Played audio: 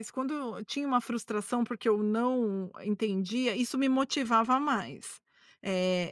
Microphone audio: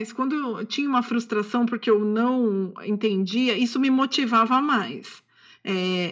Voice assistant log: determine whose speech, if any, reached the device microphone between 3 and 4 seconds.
echo only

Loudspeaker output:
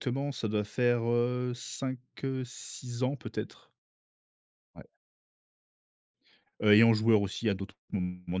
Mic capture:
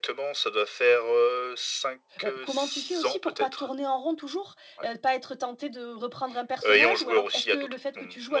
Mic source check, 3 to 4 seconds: both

